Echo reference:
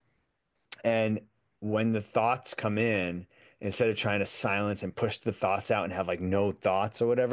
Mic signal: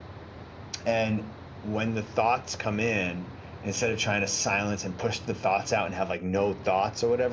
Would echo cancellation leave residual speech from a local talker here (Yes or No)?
No